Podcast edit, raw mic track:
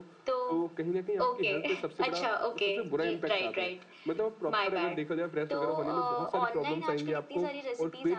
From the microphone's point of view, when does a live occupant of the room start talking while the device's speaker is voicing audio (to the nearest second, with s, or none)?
none